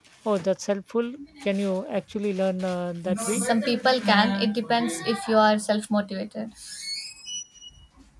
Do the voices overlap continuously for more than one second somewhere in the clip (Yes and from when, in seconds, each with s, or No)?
No